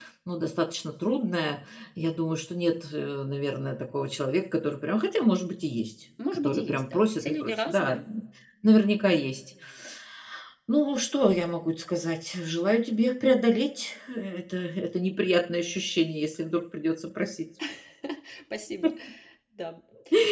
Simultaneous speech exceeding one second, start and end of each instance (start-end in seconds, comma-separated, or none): 6.4-8.0